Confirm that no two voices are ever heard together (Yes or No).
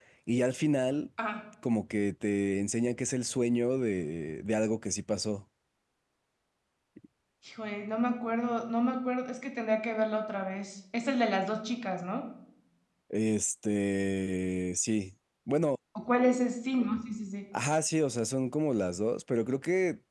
Yes